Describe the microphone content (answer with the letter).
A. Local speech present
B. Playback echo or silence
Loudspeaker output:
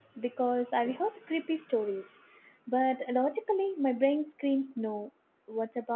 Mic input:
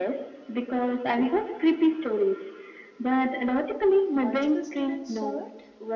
A